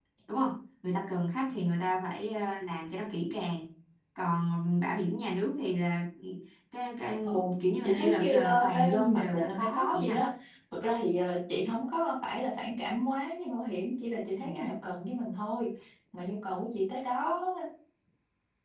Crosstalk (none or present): present